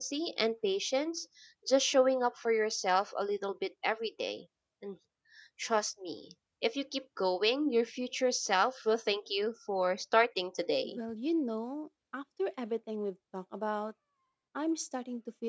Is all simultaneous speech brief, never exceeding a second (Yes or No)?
Yes